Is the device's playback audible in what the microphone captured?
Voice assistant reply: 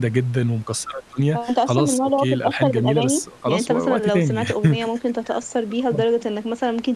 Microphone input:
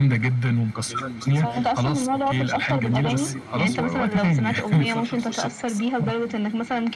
Yes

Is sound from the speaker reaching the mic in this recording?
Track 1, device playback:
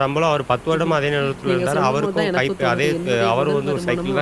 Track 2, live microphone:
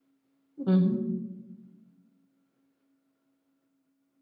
No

